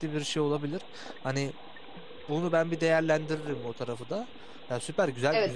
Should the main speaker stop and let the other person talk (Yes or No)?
Yes